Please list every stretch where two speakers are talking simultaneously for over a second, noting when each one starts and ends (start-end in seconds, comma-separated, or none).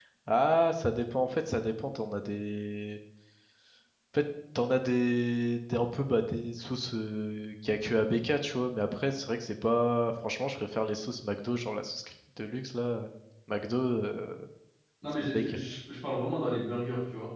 none